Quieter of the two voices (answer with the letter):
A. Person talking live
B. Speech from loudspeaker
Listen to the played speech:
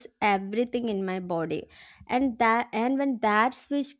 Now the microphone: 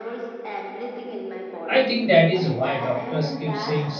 B